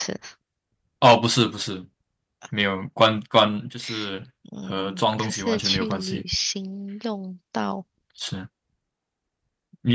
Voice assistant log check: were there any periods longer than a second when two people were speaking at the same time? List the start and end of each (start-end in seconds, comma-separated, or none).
4.7-6.2